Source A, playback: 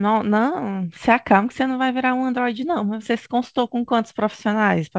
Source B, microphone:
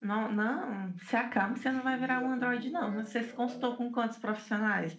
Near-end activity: present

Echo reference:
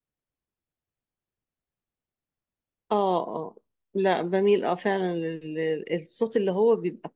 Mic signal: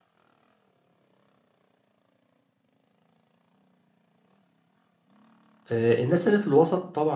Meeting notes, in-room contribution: present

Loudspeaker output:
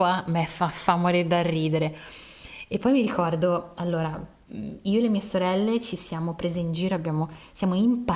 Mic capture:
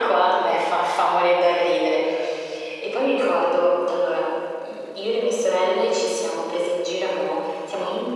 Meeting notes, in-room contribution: none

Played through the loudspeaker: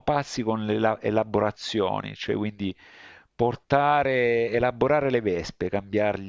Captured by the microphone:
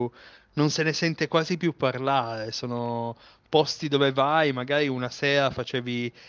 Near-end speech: present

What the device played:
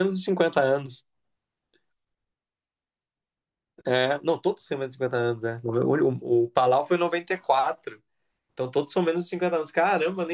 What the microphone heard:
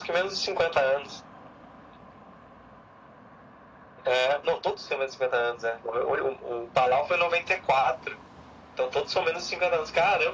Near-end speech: none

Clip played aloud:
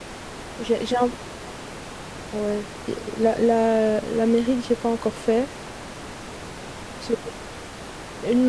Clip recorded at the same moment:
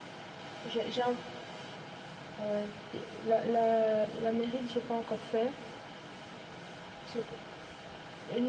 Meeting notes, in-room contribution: none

